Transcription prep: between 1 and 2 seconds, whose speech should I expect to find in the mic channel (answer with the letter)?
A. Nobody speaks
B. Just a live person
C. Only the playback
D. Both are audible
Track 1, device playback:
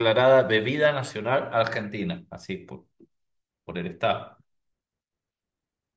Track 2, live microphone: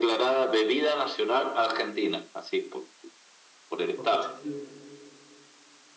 C